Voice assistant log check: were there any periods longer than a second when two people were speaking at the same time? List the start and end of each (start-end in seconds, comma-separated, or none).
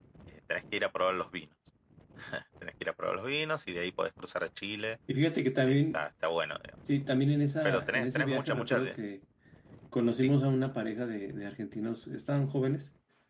7.7-9.0